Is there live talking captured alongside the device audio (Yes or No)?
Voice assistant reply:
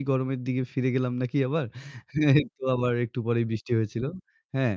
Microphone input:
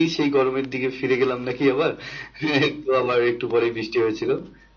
No